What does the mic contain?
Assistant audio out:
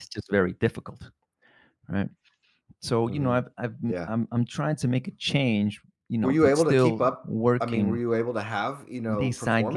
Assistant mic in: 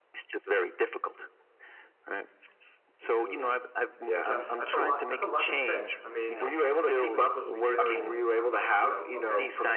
both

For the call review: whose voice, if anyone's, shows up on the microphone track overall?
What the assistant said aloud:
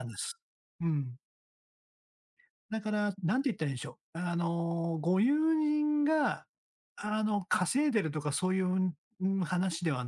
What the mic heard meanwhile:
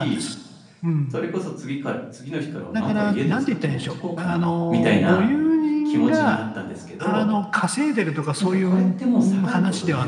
both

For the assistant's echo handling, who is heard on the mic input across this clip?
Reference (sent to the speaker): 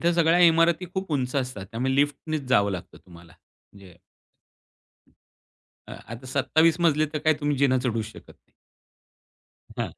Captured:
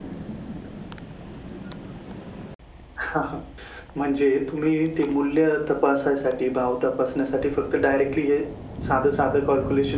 user only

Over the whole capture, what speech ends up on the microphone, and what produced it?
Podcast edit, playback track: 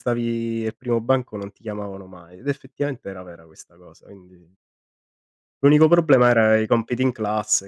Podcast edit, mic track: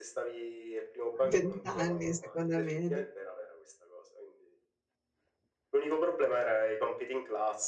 both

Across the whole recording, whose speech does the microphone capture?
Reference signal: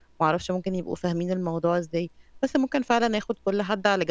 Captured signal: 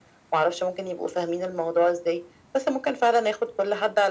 echo only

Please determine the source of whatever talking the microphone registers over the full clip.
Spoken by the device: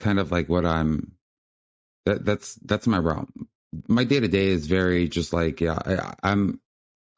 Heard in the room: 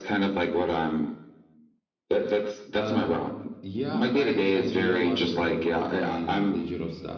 both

